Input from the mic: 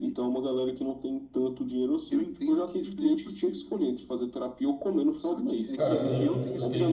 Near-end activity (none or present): present